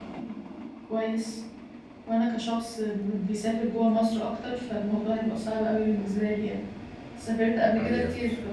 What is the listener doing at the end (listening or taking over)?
listening